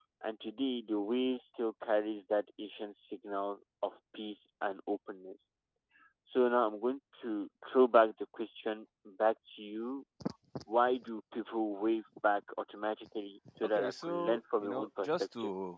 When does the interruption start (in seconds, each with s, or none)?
13.6 s